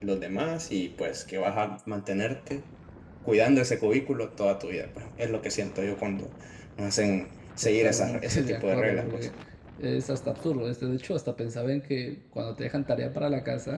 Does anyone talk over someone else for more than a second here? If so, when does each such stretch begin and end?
7.8-9.3

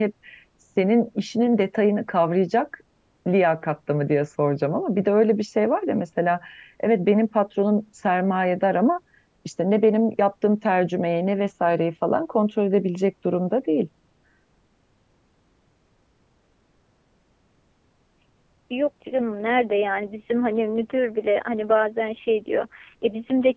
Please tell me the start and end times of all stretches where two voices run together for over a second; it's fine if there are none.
none

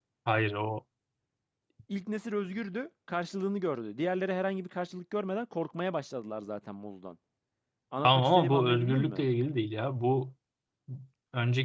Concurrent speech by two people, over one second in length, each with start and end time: 8.0-9.2

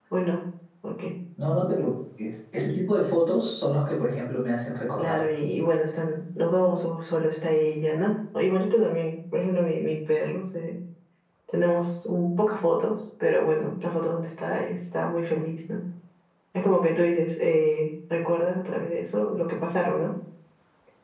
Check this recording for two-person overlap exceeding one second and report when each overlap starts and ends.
none

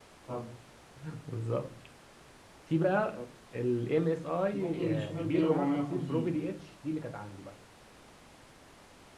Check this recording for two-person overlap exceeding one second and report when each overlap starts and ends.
4.5-6.3

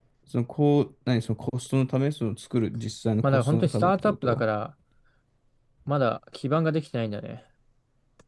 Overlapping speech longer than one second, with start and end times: 3.2-4.4

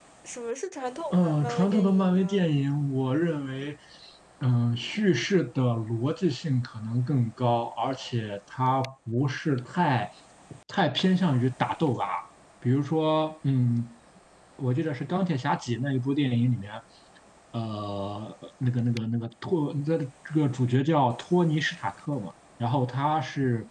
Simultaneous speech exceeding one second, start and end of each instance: 1.1-2.4

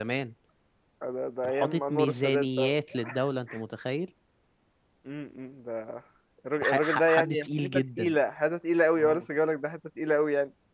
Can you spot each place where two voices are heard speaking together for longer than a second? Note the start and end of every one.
1.4-2.7, 6.6-8.2

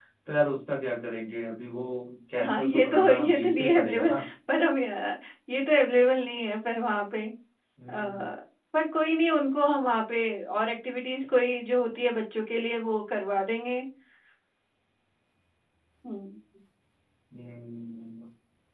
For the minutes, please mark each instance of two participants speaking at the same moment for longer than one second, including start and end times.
2.4-4.1

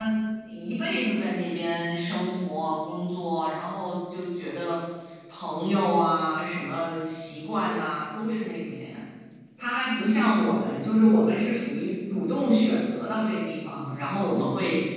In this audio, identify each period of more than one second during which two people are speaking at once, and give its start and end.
none

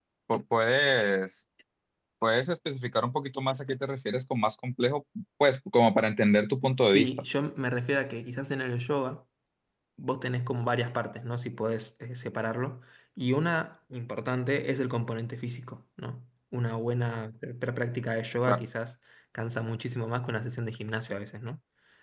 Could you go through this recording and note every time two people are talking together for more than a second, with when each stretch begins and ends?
none

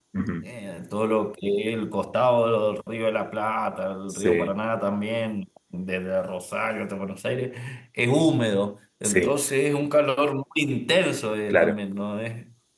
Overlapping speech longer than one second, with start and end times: none

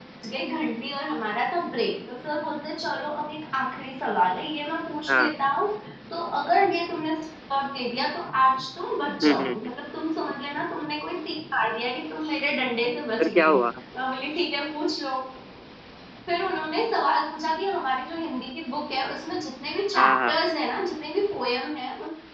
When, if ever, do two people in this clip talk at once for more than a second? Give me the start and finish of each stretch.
none

